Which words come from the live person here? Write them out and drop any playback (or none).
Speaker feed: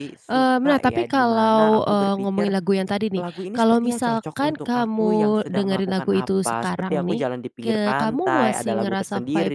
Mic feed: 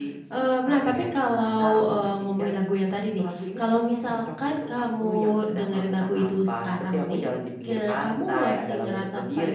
none